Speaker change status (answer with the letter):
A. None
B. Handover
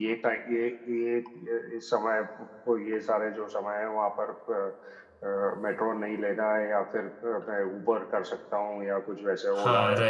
B